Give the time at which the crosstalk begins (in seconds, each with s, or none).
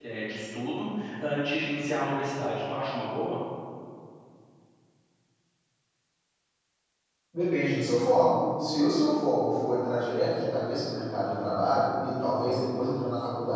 none